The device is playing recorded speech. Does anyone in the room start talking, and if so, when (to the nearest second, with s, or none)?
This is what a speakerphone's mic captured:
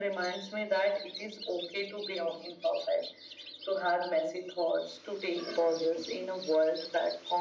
none